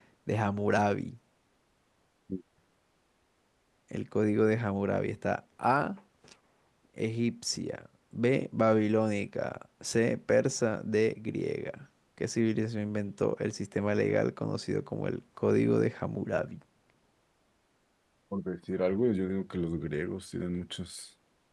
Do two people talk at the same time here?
No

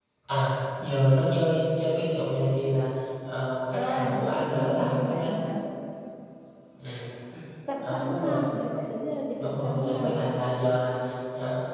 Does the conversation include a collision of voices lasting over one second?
Yes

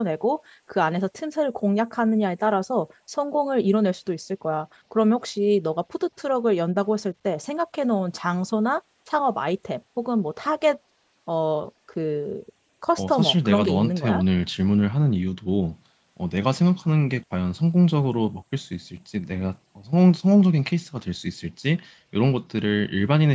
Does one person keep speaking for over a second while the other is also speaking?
Yes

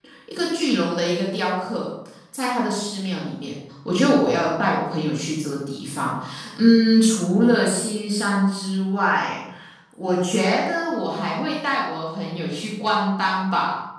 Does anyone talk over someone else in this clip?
No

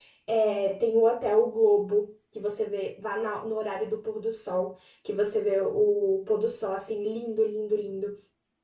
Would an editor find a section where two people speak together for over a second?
No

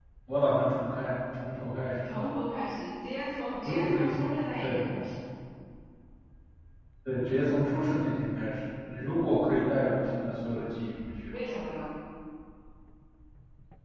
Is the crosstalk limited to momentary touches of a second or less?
Yes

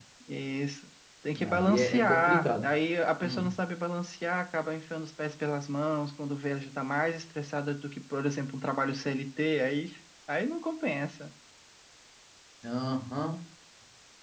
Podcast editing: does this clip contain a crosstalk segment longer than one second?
Yes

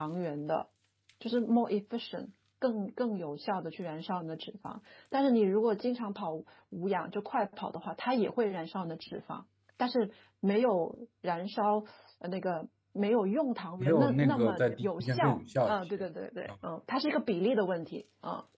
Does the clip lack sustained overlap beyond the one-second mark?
No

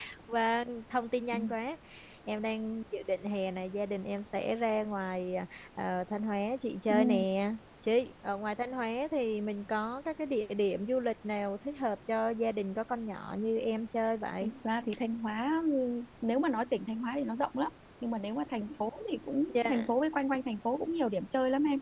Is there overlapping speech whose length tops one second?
No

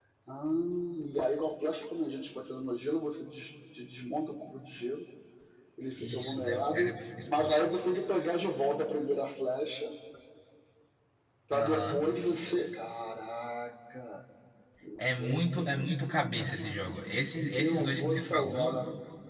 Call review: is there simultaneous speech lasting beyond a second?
Yes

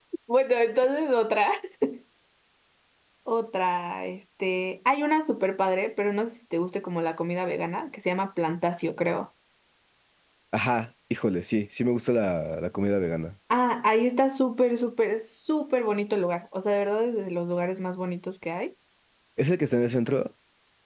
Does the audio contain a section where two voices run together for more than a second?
No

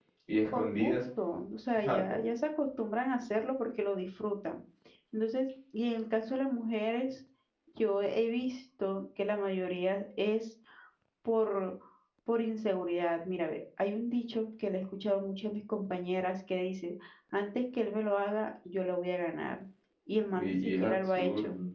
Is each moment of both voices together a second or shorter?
No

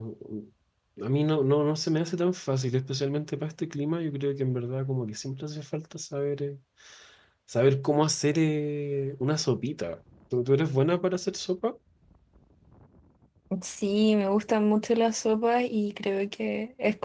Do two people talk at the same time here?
No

